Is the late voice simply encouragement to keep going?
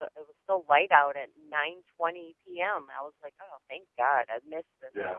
No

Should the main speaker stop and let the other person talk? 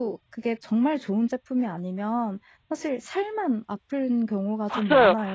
Yes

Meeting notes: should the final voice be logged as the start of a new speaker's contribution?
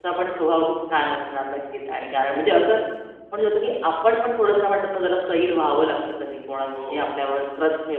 No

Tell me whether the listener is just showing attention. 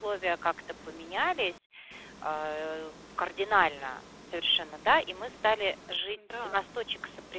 Yes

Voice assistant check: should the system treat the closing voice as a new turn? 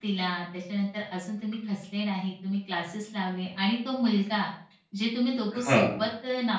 No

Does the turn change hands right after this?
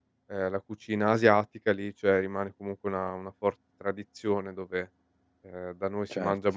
No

